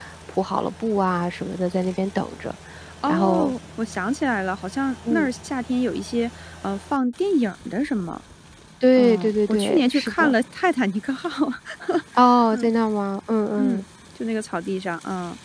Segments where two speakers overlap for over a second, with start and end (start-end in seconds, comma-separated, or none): 9.0-10.3